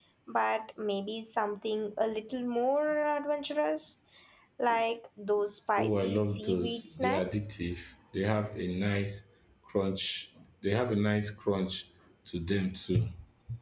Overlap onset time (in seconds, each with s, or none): 5.8 s